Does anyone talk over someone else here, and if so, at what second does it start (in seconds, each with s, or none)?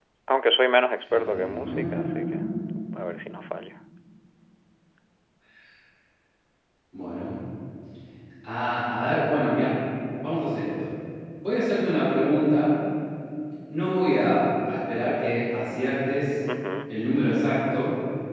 1.1 s